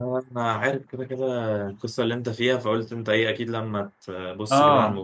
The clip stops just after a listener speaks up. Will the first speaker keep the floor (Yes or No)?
No